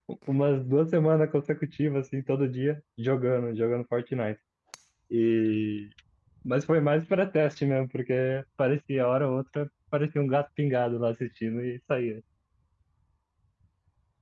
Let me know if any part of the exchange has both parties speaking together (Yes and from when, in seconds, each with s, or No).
No